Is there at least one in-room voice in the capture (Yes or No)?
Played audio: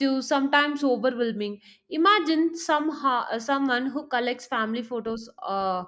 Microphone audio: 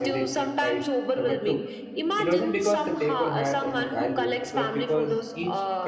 Yes